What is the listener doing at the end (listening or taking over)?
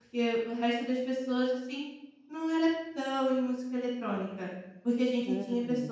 listening